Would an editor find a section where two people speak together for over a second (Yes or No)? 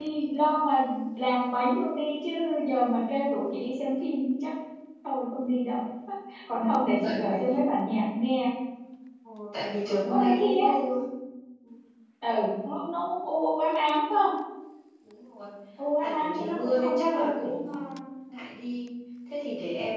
Yes